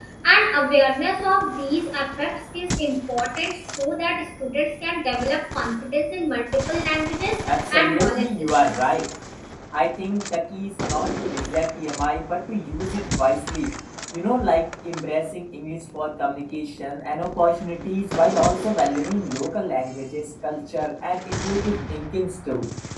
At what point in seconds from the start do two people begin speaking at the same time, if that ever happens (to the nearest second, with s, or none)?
7 s